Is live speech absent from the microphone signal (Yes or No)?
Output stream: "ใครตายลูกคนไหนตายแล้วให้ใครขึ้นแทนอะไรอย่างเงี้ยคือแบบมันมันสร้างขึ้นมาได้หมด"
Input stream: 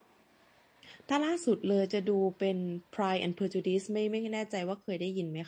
No